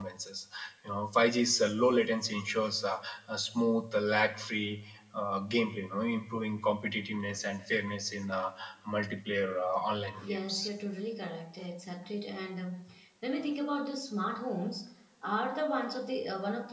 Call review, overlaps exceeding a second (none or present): none